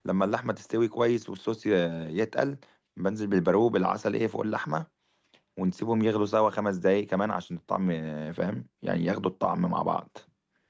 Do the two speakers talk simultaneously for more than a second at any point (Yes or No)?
No